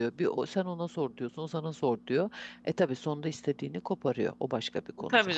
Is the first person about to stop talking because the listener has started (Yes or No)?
Yes